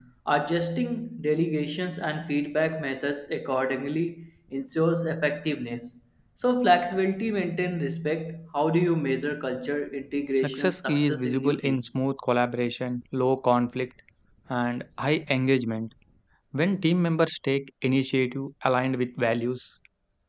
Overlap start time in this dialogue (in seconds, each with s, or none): 10.4 s